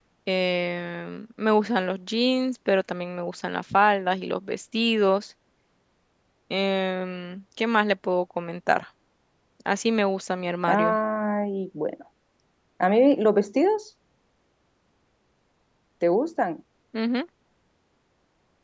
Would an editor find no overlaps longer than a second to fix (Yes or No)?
Yes